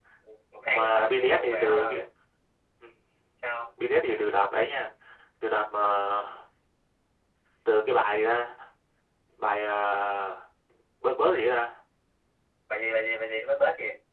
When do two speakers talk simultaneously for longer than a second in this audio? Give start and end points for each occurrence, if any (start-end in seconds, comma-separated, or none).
0.7-2.0